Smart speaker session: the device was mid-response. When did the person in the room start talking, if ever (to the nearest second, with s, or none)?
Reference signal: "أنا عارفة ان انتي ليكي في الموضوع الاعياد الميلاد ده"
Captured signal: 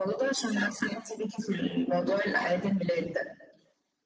none